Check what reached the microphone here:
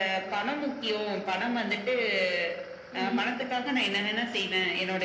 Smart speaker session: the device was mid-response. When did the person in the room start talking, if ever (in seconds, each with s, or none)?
2.9 s